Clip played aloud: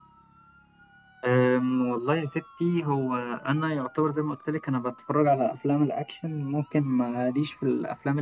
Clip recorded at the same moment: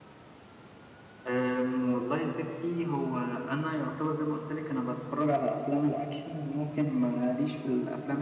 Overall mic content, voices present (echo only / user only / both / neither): echo only